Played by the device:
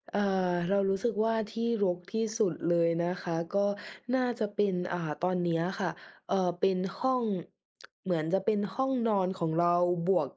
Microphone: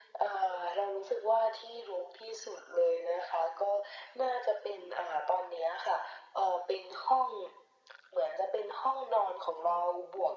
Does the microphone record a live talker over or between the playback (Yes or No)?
No